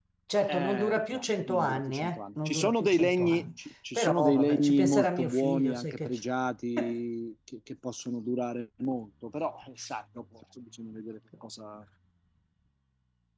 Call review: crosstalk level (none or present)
present